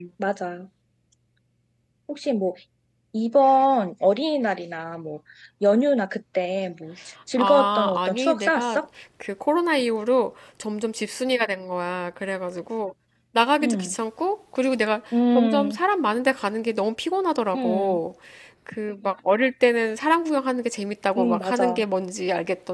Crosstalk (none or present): present